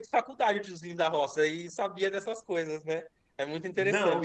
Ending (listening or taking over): taking over